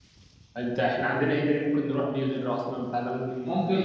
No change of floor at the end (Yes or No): No